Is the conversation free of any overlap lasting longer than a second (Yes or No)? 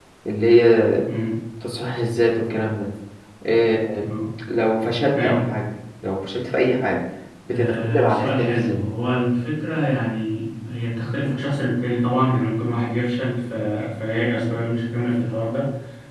No